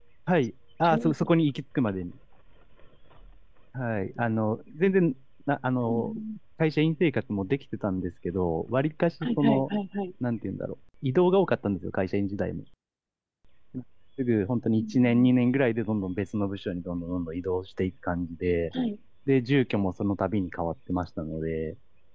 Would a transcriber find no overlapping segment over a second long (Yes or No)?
Yes